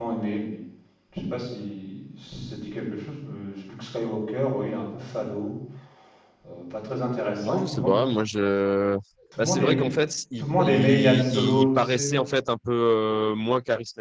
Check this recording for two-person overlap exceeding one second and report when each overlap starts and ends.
10.4-12.1

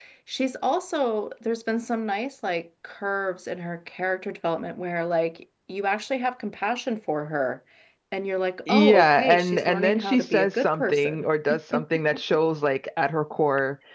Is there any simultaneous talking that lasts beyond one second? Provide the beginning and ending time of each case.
8.7-11.2

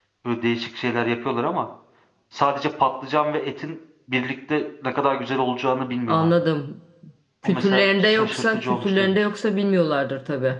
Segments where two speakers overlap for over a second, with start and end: 7.4-9.3

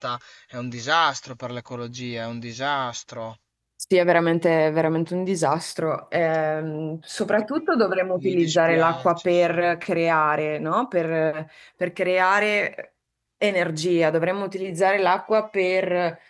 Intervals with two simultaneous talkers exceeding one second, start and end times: 8.2-9.4

